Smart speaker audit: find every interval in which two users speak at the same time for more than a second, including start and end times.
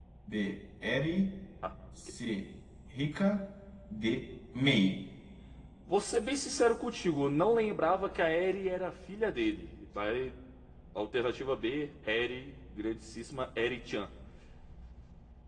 none

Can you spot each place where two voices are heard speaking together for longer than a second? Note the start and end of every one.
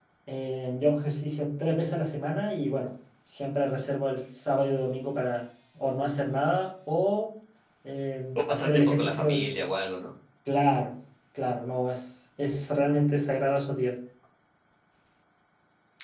8.4-9.6

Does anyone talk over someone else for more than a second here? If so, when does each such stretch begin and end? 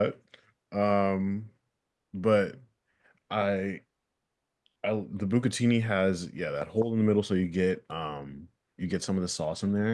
none

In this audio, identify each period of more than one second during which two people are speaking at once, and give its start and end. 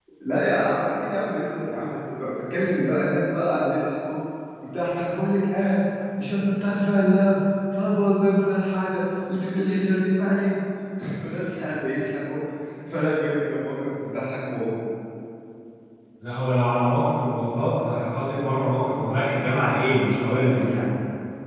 none

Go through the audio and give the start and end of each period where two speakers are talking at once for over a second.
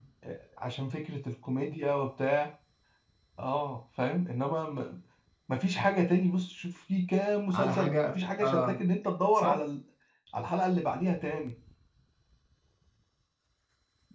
7.5-8.8

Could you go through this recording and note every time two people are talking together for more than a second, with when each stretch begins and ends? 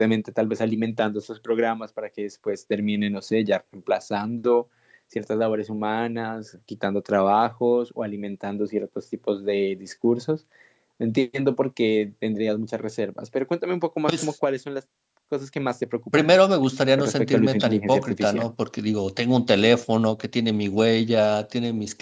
17.0-18.5

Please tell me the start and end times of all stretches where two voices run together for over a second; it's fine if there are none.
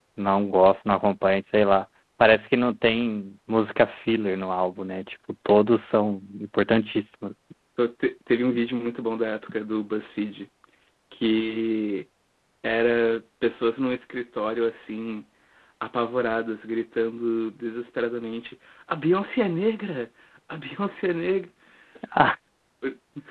none

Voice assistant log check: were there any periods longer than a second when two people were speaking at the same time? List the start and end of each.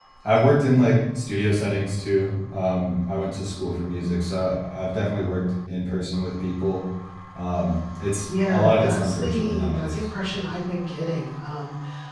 8.2-10.0

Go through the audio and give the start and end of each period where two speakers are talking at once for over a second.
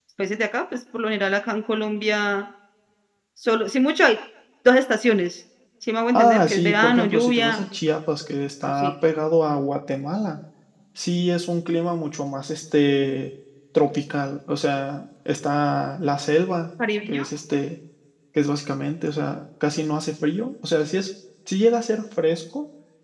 6.1-7.6

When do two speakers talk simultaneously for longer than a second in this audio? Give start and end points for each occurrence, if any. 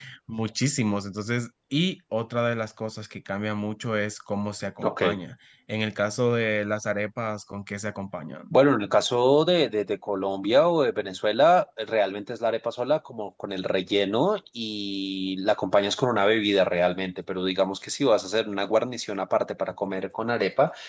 none

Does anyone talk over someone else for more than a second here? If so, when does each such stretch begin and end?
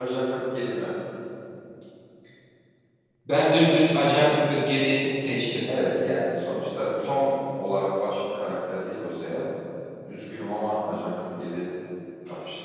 none

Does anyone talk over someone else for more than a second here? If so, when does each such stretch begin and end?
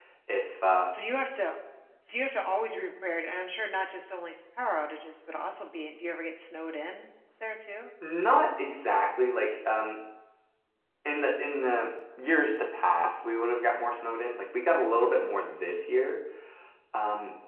none

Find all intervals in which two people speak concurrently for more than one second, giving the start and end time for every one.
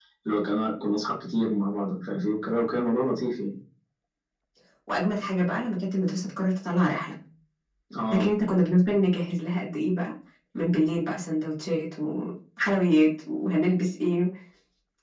none

